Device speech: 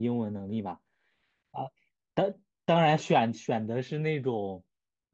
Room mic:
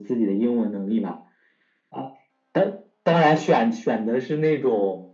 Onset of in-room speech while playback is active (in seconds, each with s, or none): none